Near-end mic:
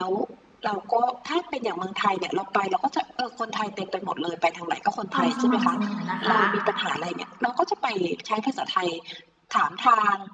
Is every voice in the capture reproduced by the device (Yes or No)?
No